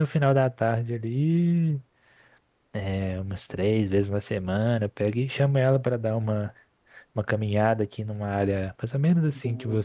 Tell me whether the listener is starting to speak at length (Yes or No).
No